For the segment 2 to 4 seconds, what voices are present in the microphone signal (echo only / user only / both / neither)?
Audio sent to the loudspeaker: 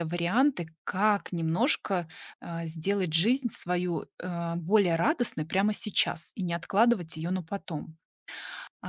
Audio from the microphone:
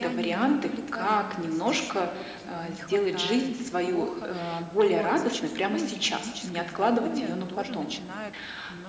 both